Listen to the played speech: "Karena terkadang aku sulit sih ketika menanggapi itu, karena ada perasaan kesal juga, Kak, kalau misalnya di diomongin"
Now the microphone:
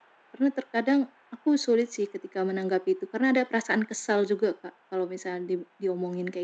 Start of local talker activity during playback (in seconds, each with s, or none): none